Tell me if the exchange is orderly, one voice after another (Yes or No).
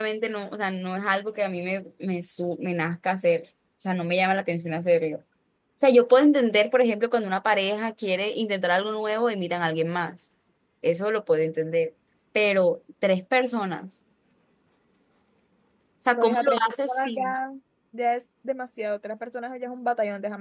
No